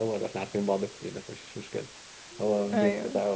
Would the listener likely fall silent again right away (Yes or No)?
Yes